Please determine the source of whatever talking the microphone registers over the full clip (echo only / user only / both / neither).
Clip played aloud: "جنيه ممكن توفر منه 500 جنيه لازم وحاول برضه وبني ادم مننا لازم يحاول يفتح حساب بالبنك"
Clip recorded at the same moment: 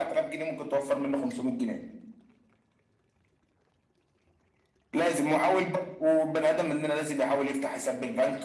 echo only